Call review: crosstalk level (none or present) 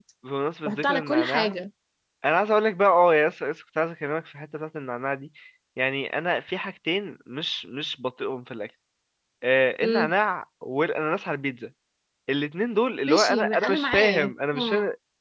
present